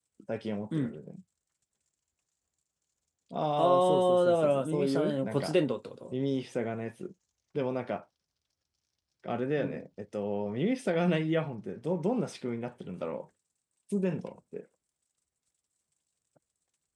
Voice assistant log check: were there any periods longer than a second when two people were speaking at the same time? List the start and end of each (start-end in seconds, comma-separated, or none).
3.6-5.6